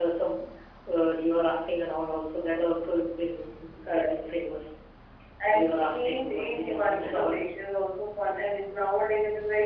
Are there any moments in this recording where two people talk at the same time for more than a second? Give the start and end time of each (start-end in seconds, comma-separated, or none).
5.5-7.4